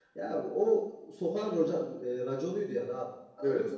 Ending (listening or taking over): listening